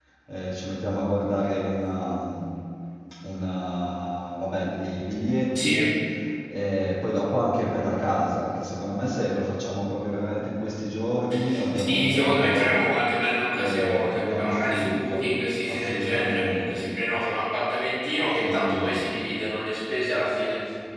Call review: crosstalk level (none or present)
present